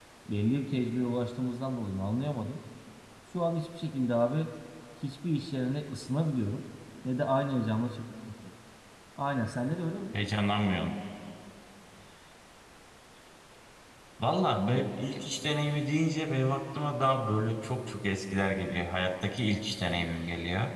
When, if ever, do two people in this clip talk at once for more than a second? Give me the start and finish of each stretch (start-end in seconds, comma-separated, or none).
none